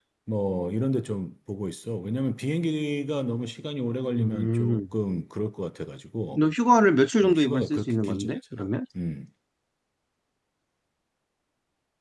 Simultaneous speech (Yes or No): Yes